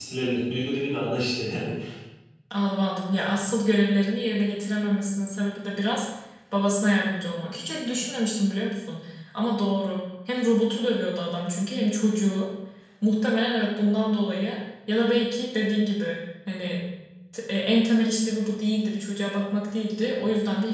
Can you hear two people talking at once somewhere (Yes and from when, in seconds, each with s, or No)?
No